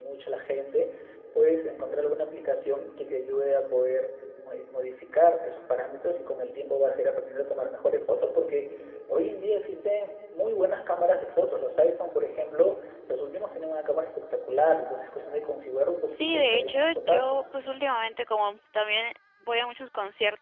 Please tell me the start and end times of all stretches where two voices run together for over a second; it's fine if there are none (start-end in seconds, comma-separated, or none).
16.1-17.4